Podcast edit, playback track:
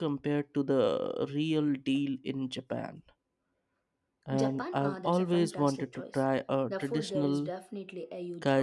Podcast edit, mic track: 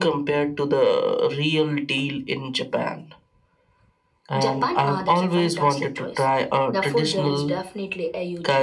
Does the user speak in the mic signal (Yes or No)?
No